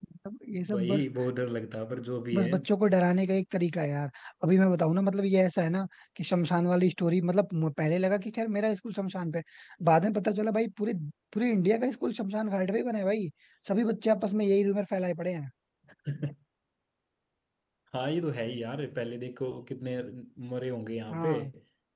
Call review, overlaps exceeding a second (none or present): none